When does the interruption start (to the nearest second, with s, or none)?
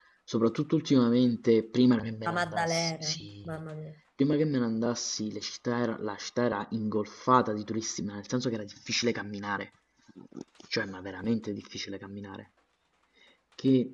2 s